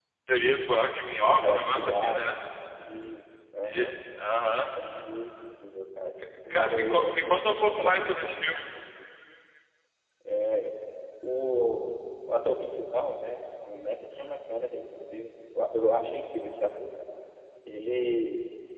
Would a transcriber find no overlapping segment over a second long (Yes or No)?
No